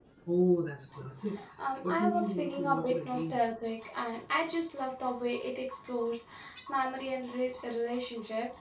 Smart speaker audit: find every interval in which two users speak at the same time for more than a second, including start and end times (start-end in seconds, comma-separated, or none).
1.9-3.4